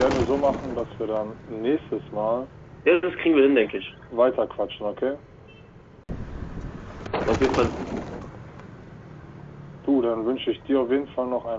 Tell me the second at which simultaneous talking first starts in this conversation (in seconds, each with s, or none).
none